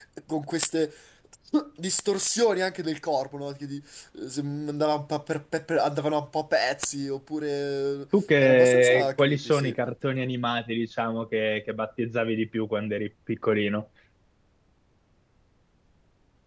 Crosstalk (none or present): present